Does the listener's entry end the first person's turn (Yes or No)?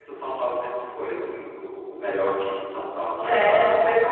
Yes